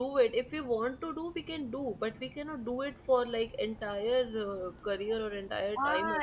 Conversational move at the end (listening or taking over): taking over